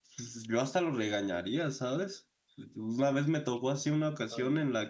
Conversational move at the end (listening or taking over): listening